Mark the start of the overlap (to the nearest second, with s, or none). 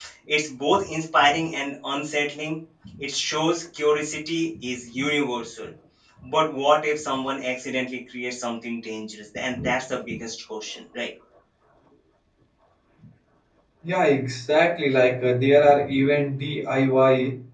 none